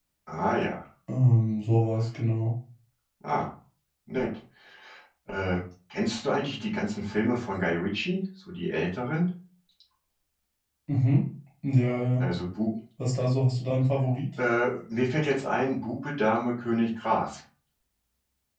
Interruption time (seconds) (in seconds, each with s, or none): none